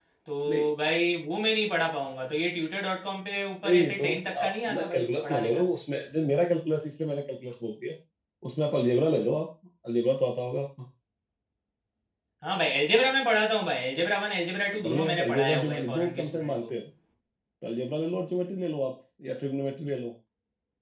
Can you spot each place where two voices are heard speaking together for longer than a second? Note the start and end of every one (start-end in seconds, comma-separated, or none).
3.6-5.6, 14.8-16.7